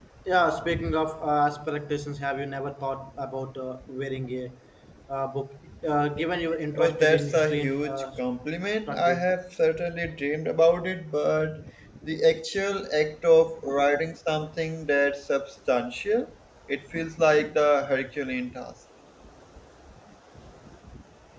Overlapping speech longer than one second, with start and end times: 6.8-8.0

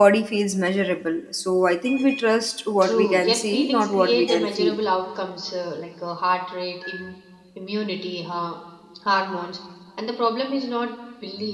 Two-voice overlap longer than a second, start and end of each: 2.8-4.8

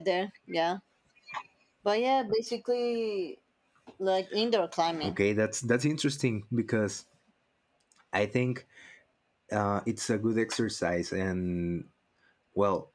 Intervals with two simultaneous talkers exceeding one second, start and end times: none

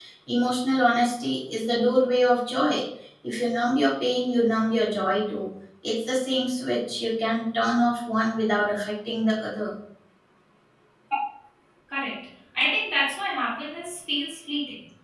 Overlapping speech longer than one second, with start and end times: none

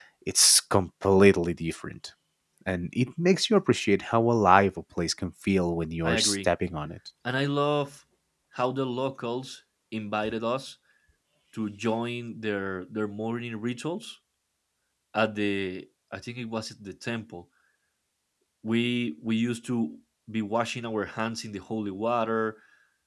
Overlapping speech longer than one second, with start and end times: none

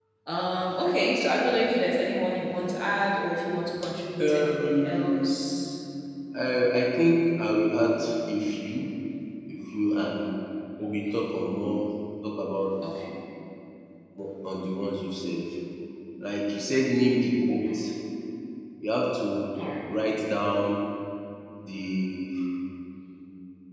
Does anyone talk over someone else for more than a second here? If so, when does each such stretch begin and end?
4.2-5.4

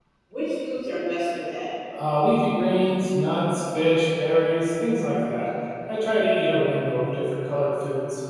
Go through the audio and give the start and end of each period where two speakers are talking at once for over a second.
none

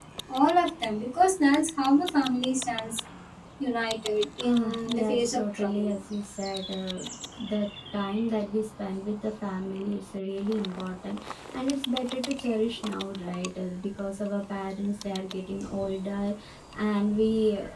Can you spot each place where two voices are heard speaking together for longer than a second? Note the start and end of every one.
4.4-5.9

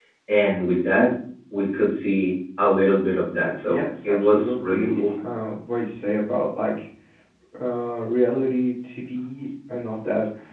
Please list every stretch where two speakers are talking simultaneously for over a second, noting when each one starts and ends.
3.7-5.0

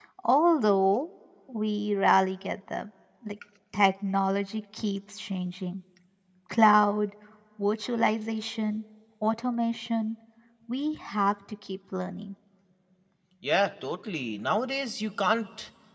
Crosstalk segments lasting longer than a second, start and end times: none

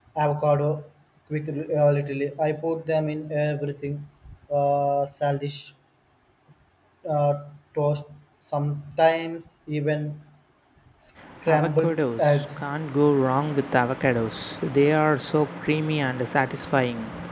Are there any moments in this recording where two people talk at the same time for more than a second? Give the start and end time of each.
11.5-12.7

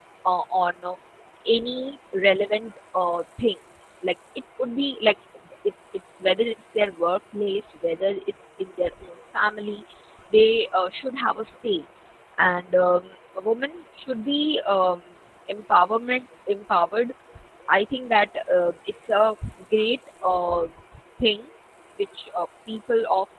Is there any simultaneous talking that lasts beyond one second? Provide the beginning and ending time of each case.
none

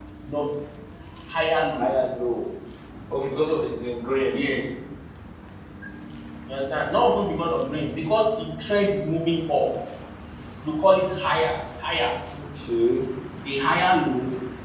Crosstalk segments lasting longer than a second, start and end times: none

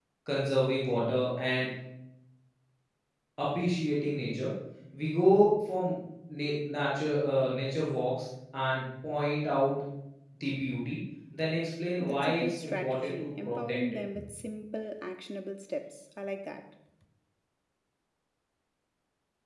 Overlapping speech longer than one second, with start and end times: 12.0-13.8

